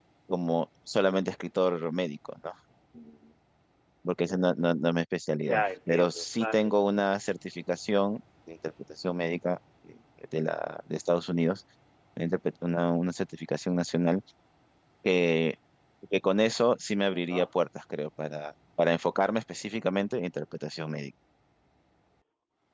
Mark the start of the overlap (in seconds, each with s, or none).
5.5 s